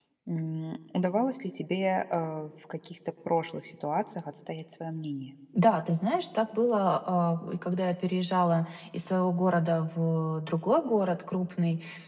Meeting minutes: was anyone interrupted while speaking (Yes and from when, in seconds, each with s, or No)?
No